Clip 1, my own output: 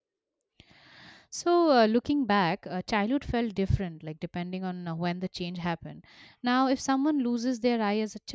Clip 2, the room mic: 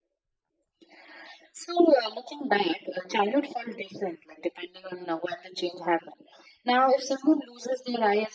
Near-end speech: none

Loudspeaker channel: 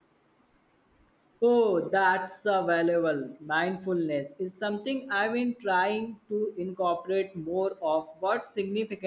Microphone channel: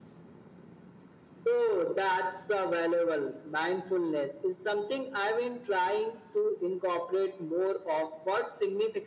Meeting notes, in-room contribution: none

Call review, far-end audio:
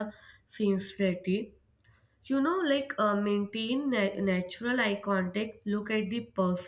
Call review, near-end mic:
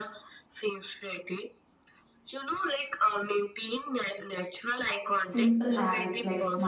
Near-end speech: present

